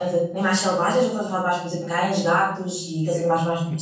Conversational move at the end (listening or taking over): taking over